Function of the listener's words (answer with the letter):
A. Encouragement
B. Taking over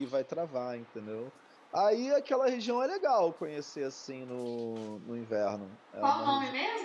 B